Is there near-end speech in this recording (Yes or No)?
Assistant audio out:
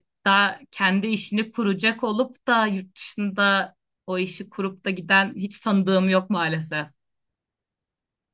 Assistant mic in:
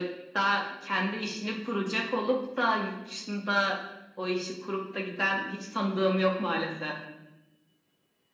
No